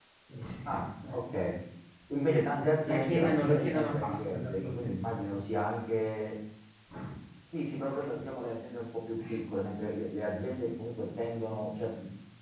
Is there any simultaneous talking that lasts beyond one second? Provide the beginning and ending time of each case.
2.9-5.2

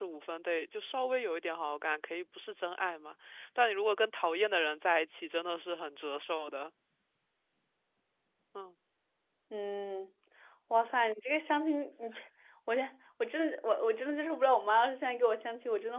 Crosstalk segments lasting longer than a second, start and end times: none

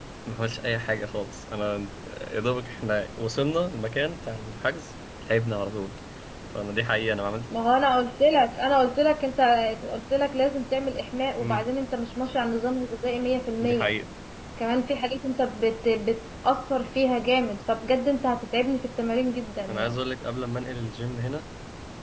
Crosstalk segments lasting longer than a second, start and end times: none

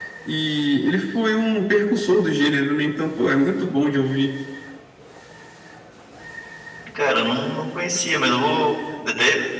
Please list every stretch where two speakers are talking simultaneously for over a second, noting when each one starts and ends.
none

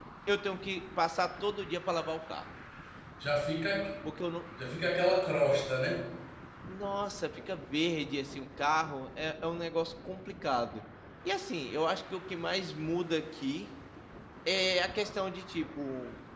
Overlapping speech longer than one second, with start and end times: none

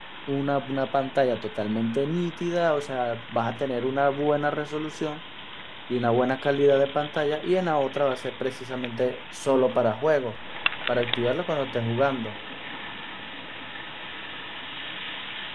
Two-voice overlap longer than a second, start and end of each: none

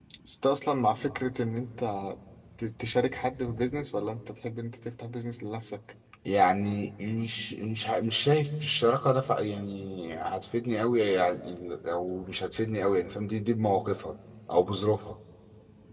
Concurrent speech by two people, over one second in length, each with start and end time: none

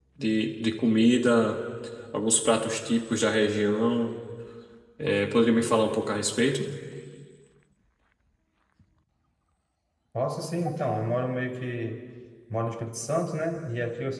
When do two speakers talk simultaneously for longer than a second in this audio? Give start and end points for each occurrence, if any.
none

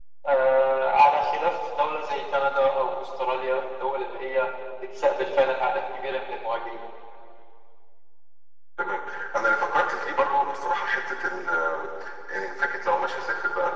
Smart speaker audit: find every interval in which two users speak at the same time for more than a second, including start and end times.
none

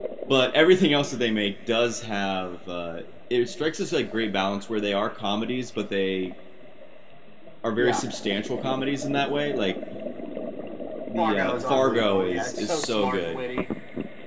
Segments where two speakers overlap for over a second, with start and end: 11.2-13.4

